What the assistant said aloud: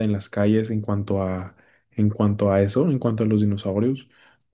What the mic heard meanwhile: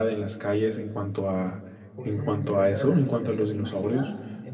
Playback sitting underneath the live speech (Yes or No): No